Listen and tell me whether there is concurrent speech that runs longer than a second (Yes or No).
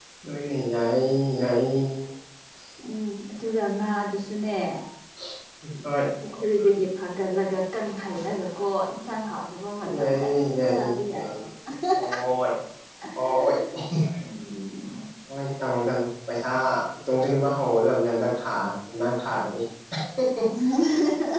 Yes